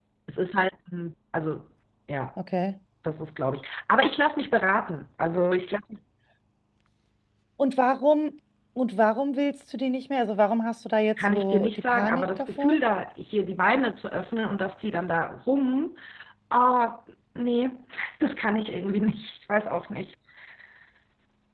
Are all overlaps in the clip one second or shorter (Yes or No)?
No